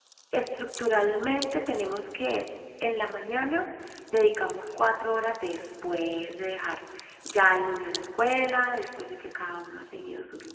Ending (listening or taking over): listening